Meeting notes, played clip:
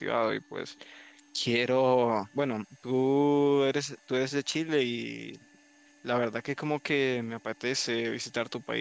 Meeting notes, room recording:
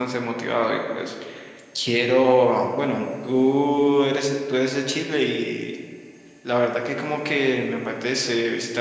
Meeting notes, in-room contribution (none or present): none